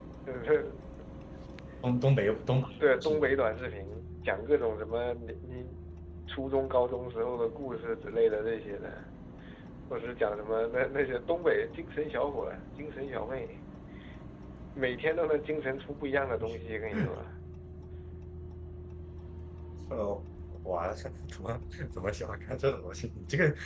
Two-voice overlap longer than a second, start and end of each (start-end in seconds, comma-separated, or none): none